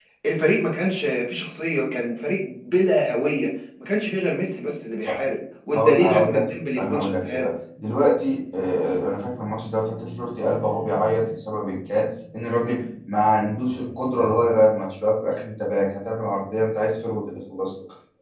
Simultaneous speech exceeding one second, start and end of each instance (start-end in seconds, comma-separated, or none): 5.7-7.5